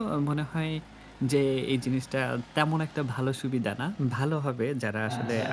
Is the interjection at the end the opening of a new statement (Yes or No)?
No